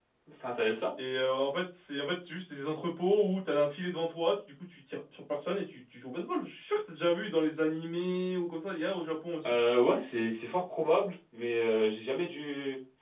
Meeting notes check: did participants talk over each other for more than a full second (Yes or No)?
No